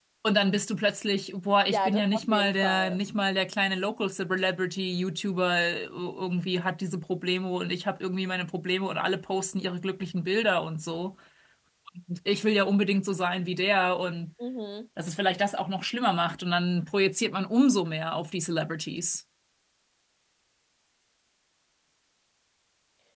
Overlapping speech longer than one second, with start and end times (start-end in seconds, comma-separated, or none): 1.7-3.0